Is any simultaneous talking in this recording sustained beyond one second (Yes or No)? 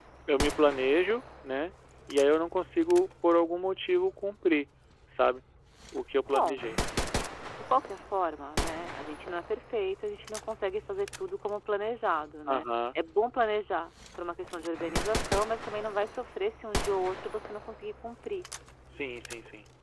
No